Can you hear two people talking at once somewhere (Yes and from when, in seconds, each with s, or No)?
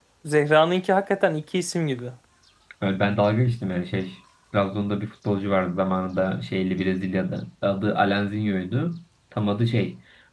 No